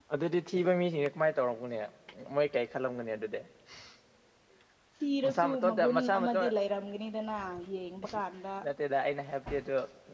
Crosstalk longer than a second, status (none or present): present